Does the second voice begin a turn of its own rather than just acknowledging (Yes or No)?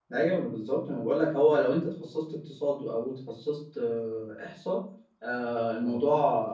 No